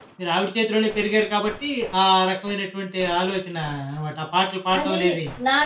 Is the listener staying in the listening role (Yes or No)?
No